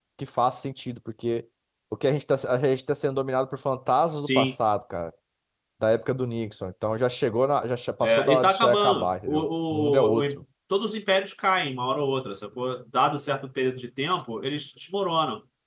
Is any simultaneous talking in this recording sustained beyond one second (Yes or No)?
Yes